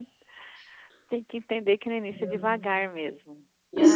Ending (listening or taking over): taking over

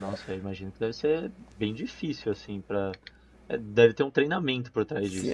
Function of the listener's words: taking over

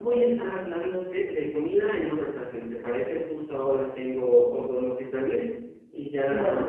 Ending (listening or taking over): listening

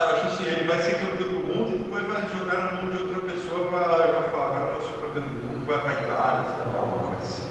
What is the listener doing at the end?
taking over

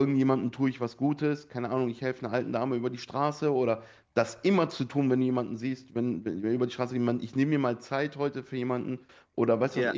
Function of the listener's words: listening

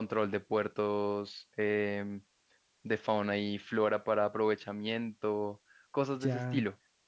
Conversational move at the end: taking over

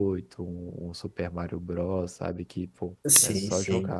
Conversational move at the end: taking over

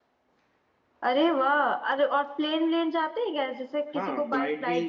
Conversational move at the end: taking over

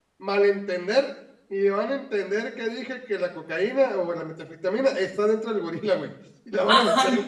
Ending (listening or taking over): taking over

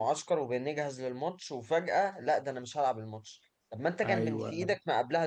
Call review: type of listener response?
listening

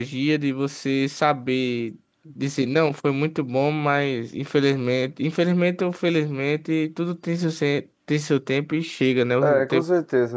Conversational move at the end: taking over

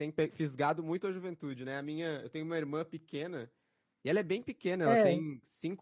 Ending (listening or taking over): listening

